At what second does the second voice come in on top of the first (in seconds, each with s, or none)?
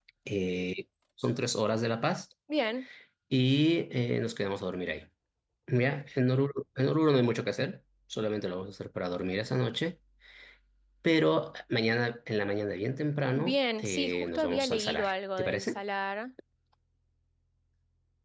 13.4 s